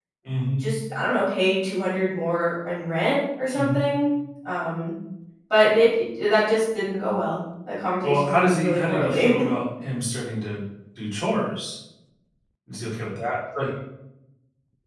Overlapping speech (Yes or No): Yes